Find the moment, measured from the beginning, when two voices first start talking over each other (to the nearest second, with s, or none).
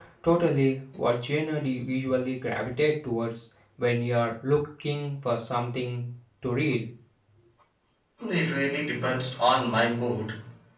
none